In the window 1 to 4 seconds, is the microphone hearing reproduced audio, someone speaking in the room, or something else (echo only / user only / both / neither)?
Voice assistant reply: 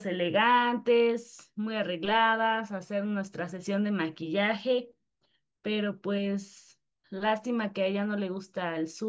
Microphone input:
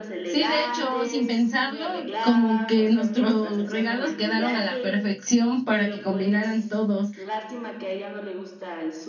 both